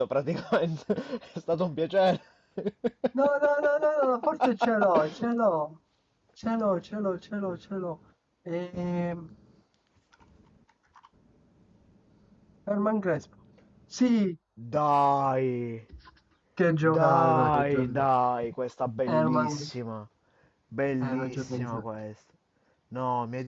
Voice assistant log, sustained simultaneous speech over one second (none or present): present